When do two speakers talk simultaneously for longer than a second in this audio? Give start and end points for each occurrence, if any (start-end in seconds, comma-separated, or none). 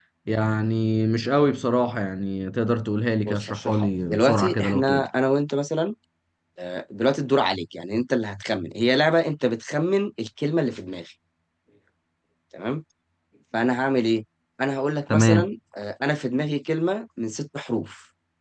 3.2-5.1